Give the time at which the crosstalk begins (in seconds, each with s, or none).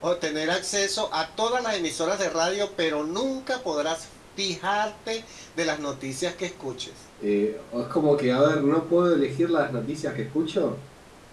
none